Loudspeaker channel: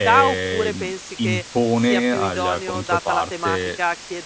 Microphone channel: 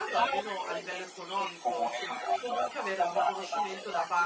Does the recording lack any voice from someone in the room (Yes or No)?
No